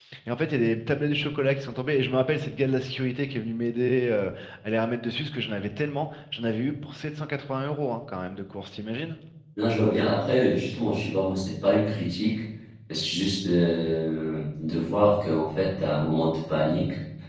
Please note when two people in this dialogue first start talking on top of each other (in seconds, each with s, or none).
none